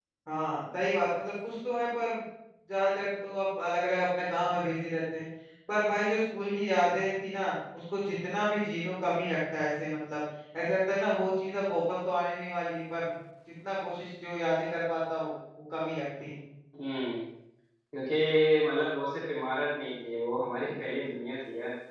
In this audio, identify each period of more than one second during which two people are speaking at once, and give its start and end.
none

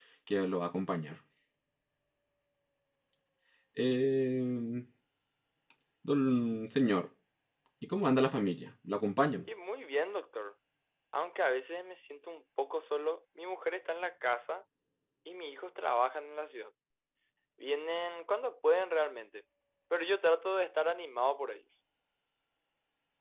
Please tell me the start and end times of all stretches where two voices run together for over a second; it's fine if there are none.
none

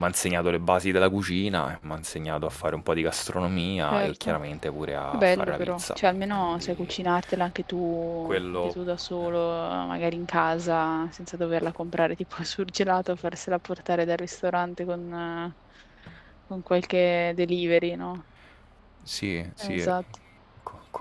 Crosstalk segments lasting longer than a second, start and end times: 5.1-6.9

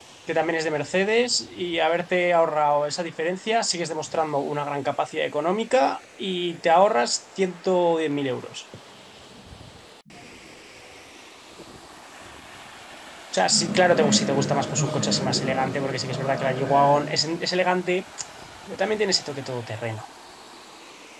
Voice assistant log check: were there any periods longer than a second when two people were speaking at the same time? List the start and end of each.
13.4-17.0

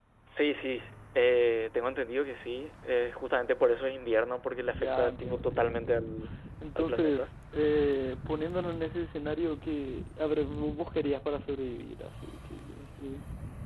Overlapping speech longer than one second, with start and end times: 4.6-6.1

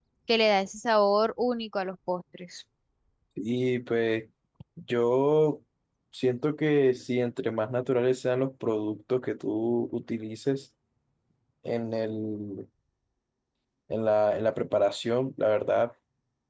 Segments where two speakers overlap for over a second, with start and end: none

